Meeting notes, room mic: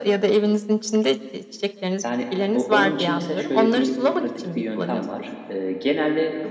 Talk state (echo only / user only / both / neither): both